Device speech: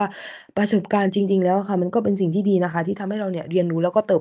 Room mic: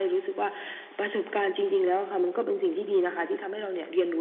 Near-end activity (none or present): none